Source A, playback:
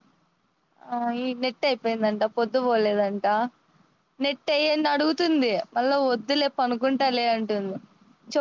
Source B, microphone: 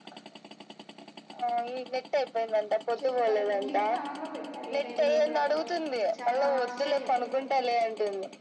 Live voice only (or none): చెప్పాలి లిఫ్ట్ ఆన్ లో పెట్టాలి ఈ టైమ్ లో కూడా అప్ప చాలా ఆశ్చర్యం